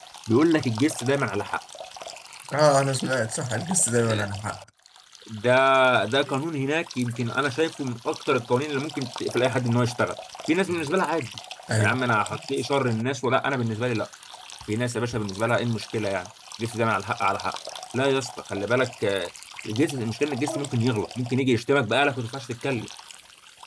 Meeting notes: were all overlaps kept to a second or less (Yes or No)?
Yes